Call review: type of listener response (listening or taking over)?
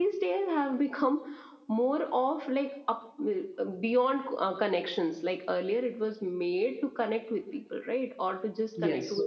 listening